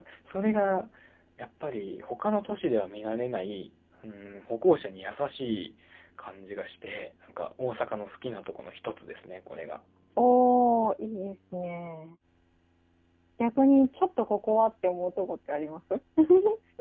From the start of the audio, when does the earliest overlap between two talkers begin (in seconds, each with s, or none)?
none